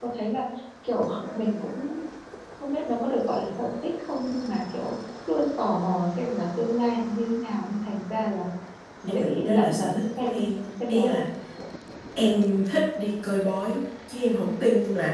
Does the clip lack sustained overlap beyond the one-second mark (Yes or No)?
No